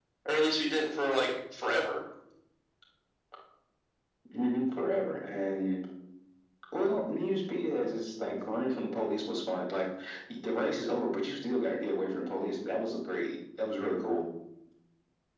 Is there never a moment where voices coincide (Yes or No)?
Yes